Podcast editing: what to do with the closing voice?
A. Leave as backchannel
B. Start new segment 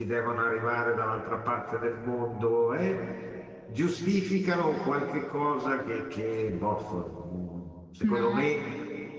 A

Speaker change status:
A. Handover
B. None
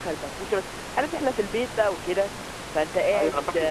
A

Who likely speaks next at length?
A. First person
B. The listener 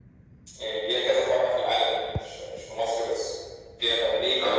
A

